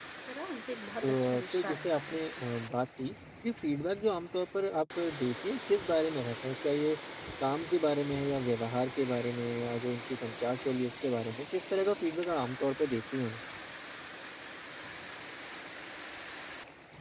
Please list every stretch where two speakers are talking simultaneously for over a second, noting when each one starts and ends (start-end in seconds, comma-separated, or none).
1.0-2.3